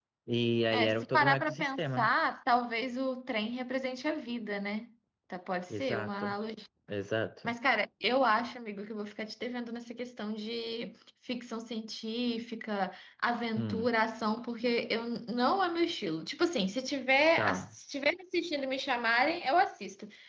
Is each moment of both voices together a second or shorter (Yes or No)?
No